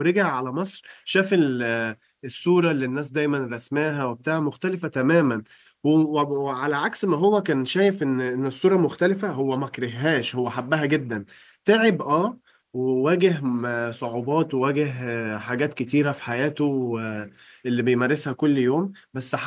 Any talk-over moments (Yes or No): No